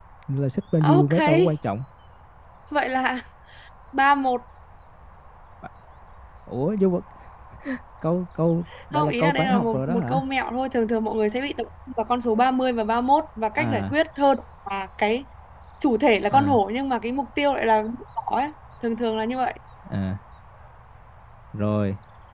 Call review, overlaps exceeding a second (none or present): present